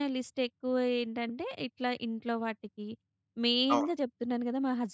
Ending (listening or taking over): listening